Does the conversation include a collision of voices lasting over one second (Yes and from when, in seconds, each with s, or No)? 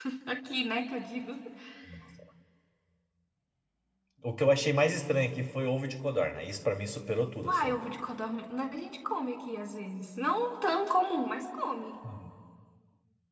No